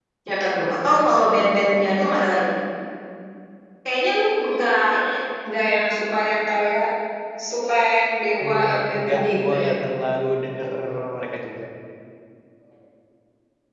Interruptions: present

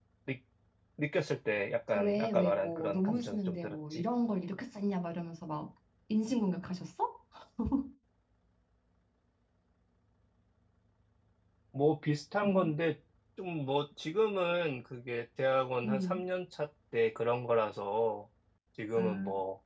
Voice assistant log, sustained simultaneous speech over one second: present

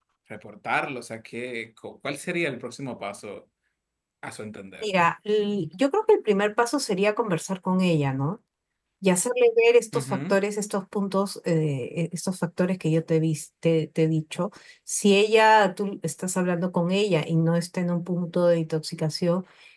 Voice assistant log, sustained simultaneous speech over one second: none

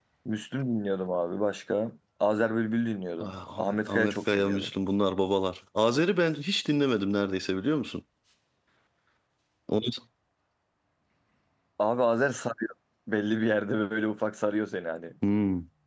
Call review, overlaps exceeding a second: present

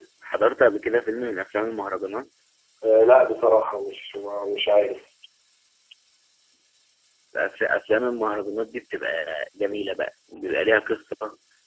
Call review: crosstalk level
none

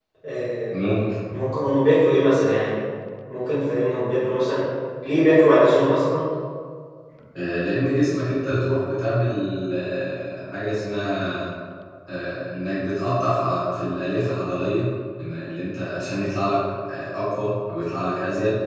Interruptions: none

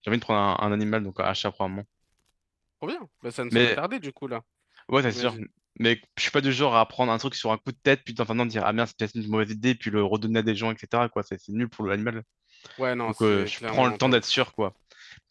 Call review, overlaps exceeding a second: present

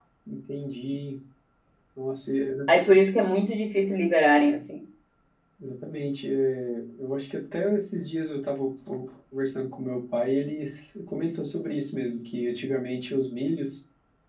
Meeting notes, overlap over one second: none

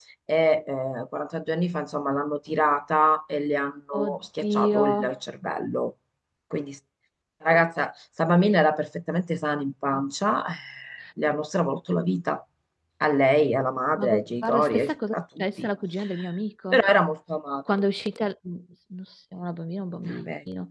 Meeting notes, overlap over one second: present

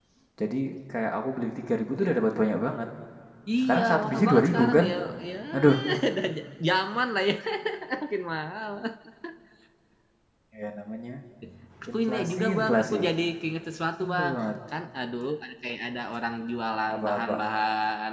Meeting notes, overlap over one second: present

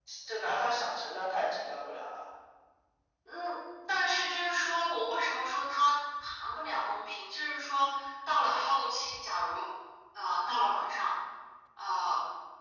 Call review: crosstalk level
none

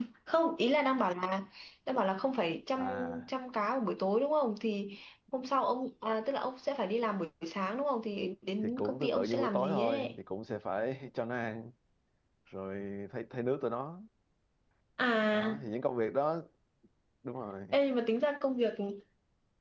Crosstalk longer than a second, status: present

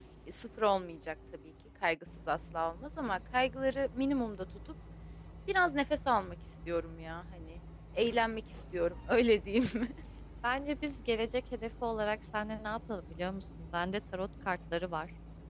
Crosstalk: none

